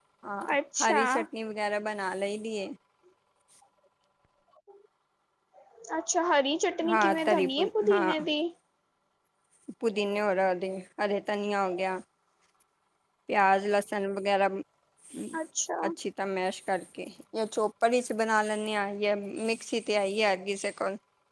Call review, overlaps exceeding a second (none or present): present